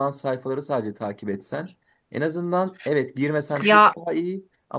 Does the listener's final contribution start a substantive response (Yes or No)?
No